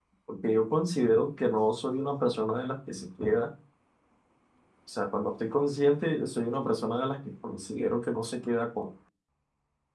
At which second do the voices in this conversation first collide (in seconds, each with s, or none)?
none